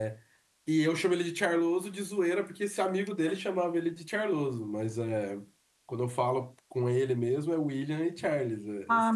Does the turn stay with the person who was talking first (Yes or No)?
No